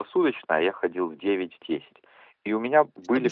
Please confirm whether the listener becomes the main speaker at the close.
No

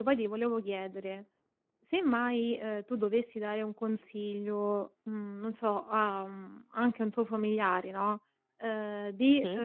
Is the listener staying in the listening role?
Yes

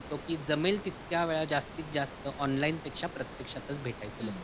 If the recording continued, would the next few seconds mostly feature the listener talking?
Yes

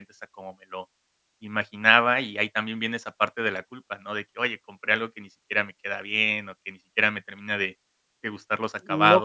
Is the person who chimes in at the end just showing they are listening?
No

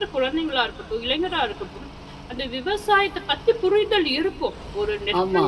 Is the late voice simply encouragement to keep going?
Yes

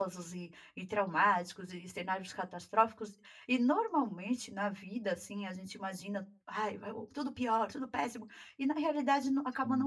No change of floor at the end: Yes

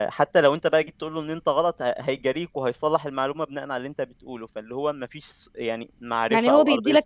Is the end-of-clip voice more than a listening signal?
Yes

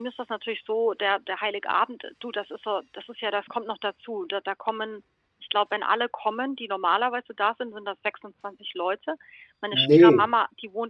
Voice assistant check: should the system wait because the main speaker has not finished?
Yes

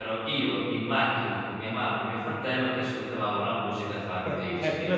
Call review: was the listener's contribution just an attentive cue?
No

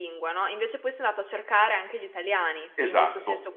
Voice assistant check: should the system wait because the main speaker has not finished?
No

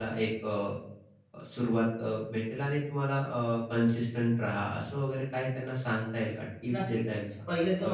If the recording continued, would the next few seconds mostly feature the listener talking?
Yes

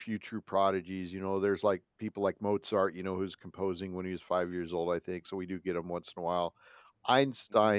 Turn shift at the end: No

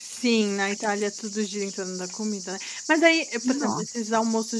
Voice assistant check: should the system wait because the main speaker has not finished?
Yes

